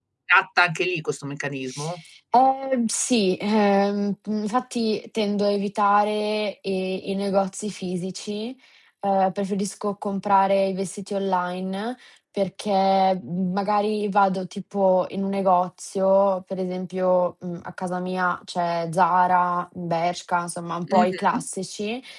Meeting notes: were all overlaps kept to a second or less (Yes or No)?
Yes